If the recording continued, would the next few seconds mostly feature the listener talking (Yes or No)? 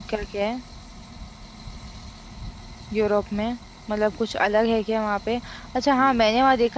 No